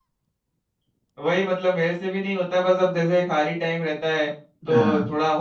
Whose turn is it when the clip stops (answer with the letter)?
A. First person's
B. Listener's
A